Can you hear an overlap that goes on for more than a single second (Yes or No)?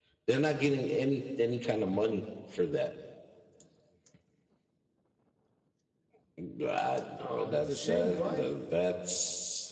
Yes